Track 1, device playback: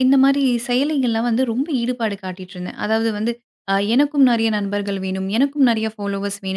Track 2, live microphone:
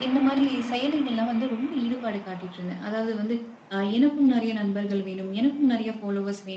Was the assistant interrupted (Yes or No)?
No